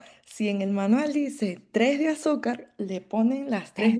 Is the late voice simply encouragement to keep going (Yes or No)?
Yes